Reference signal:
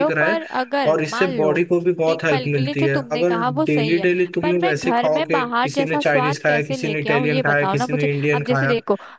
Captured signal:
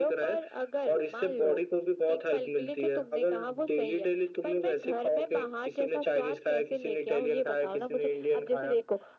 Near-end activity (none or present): none